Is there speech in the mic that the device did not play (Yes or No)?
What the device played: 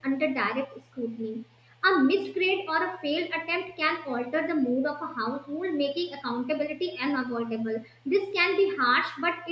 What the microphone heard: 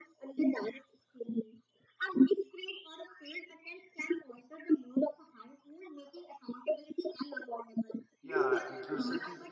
Yes